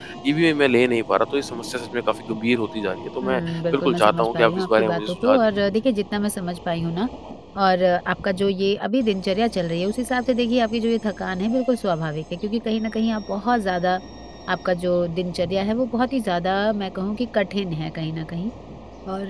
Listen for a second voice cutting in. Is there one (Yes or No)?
Yes